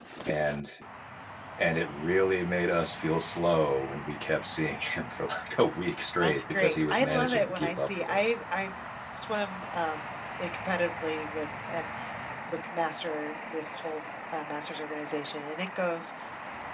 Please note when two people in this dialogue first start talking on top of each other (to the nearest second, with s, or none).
6 s